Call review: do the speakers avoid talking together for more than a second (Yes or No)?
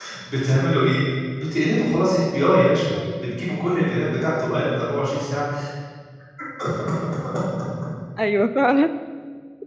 Yes